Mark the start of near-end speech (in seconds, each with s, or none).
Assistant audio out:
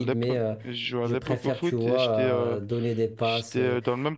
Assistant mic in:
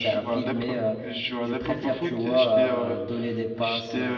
none